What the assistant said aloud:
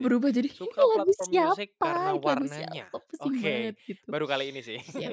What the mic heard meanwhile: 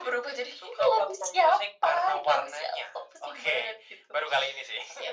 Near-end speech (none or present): none